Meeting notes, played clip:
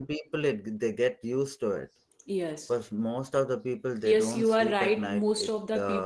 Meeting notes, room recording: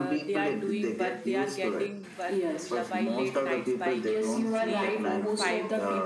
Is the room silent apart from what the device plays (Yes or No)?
No